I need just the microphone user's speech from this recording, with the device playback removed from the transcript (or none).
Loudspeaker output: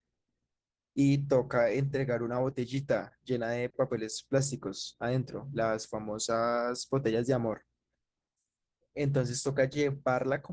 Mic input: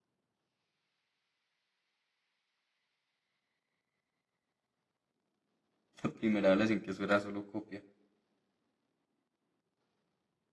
La primera evaluación que eso era solo copia.